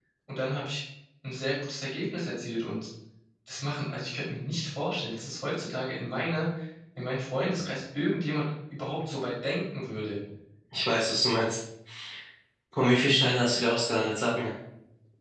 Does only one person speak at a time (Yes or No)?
Yes